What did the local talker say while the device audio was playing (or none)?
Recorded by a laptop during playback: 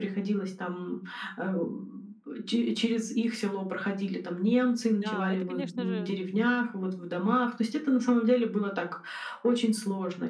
Да, это, конечно же